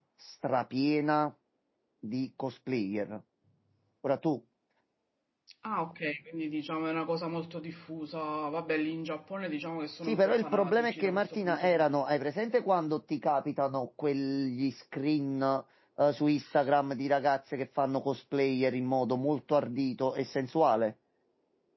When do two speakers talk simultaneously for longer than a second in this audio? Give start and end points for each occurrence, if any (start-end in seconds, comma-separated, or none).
10.0-12.0